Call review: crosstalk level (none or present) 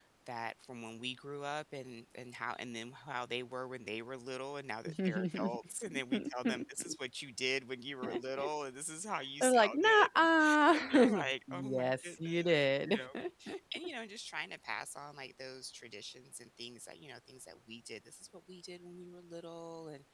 present